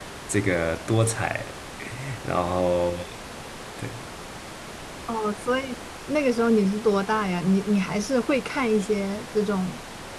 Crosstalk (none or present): none